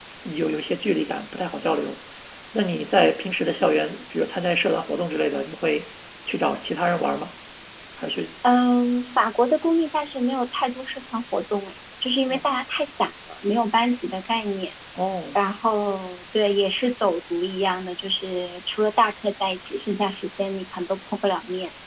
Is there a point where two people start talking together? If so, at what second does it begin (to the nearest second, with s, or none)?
none